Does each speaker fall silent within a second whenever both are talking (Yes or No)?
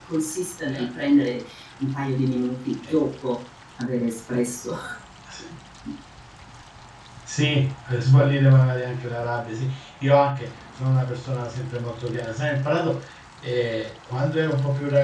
Yes